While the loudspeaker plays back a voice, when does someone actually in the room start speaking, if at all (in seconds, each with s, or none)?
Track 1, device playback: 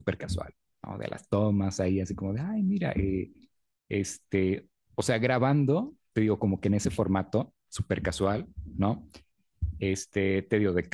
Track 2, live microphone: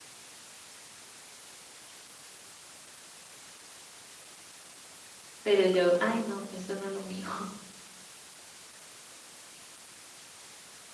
5.4 s